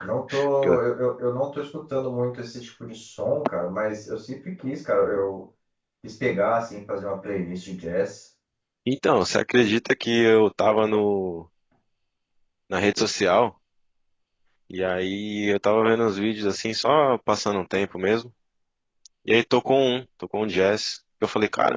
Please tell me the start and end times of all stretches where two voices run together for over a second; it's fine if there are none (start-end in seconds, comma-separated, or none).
none